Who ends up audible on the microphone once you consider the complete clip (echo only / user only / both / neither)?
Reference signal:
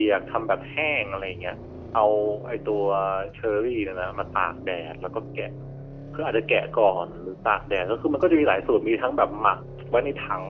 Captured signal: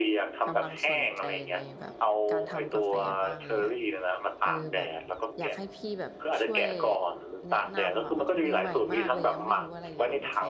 both